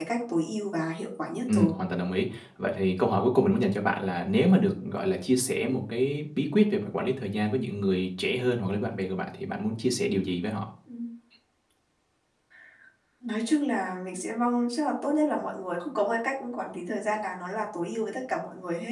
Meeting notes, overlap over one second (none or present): none